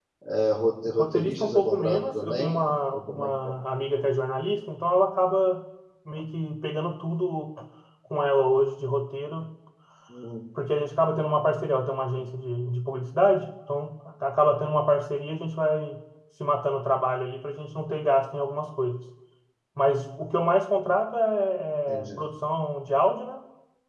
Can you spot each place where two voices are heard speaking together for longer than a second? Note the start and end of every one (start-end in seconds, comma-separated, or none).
0.9-3.3